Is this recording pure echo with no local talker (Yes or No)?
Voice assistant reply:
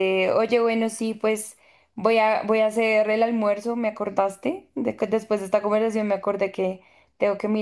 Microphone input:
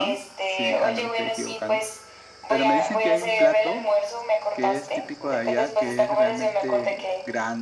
No